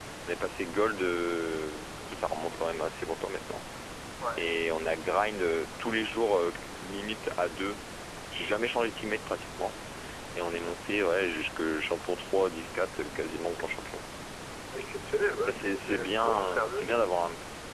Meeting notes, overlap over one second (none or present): present